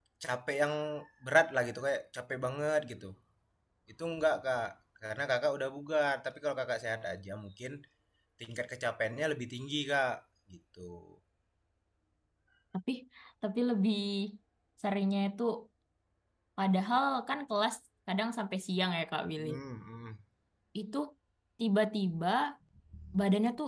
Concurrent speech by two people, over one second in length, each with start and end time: none

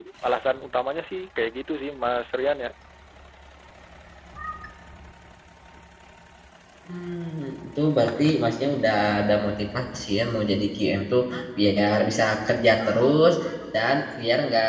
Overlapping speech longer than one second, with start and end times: none

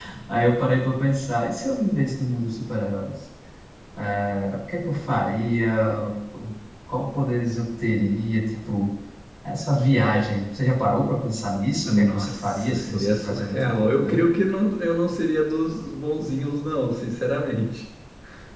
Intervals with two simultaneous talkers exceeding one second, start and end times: 11.8-14.2

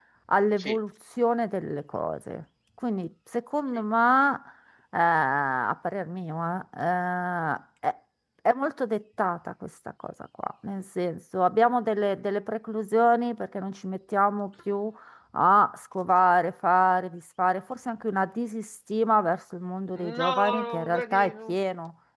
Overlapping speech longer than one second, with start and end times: 19.9-21.6

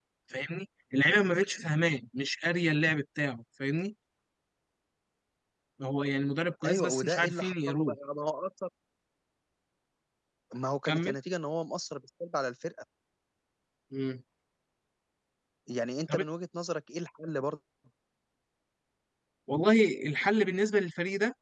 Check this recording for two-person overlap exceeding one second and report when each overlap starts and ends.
6.6-8.0

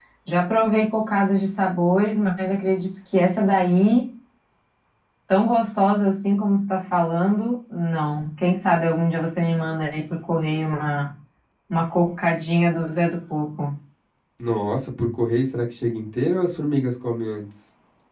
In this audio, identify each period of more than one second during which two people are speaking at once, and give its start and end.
none

